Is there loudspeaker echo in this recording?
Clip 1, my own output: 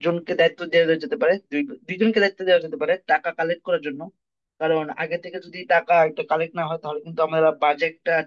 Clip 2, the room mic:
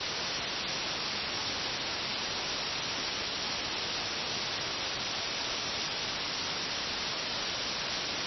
No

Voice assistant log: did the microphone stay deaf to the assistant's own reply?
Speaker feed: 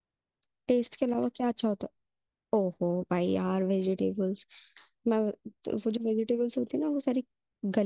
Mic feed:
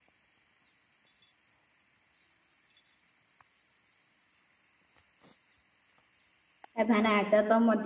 Yes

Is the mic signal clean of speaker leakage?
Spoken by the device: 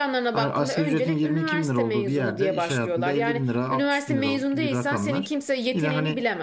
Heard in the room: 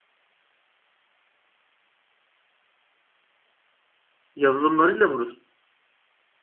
Yes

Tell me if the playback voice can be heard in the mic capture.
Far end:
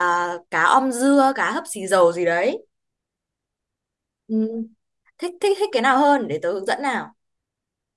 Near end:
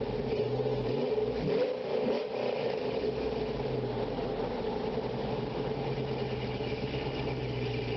No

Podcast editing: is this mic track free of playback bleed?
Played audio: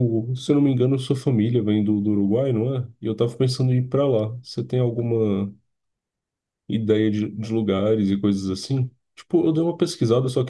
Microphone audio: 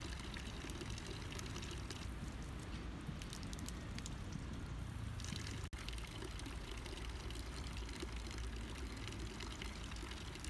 Yes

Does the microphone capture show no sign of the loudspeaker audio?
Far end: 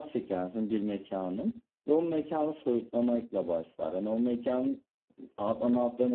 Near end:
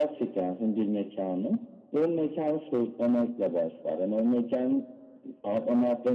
No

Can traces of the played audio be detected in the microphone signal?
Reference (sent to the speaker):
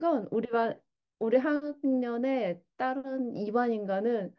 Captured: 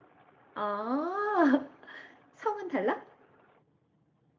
No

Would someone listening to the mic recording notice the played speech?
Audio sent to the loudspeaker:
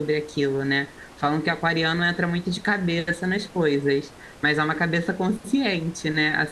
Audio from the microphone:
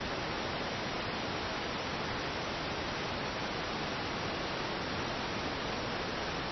No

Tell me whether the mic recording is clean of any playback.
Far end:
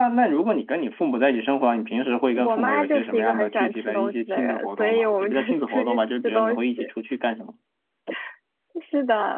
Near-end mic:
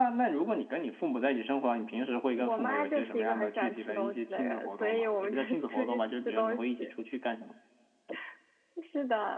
No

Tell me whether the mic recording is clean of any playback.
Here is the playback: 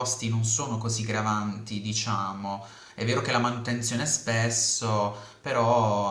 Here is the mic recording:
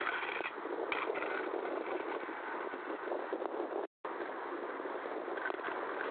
Yes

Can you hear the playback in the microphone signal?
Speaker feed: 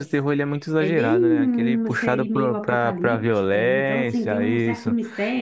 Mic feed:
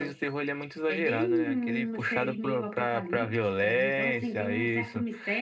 Yes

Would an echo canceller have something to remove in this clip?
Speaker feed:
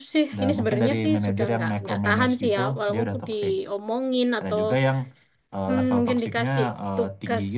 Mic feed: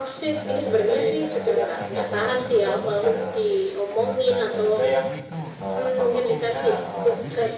Yes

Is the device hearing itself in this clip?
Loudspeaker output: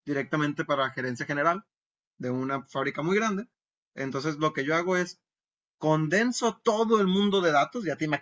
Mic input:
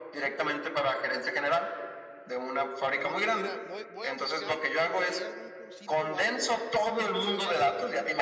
Yes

